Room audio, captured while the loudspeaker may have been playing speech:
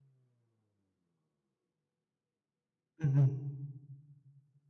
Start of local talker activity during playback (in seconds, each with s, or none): 3.0 s